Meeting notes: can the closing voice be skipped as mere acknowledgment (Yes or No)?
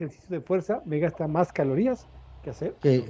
No